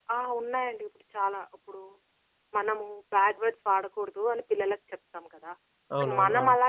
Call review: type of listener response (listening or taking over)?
listening